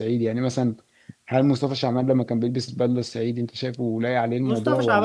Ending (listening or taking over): taking over